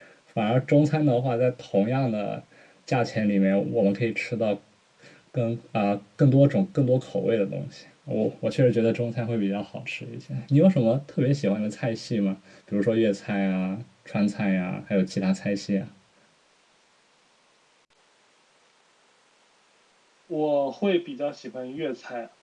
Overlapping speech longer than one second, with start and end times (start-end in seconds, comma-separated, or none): none